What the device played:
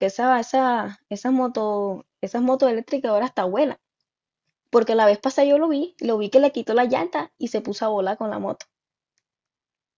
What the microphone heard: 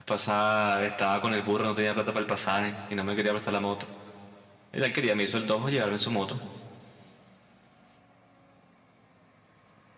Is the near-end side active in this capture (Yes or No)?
Yes